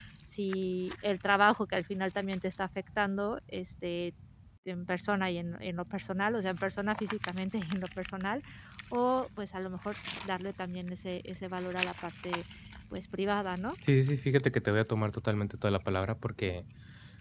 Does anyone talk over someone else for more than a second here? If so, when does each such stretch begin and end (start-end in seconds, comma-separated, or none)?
none